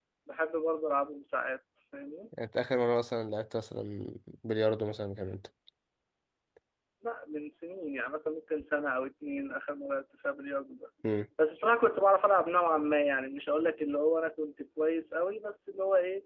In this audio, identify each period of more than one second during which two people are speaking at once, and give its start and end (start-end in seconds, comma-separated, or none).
none